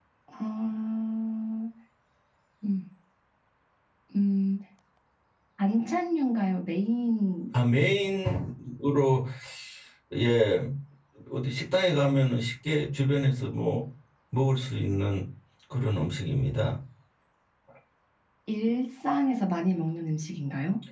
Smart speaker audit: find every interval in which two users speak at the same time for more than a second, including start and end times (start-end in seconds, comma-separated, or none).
none